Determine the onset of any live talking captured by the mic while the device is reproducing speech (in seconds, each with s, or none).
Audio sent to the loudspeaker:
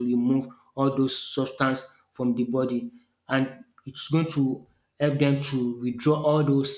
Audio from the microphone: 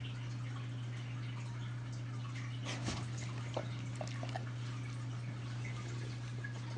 none